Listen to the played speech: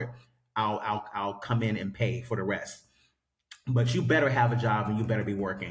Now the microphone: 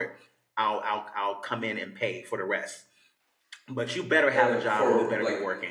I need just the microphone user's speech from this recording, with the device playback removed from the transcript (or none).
uh, for like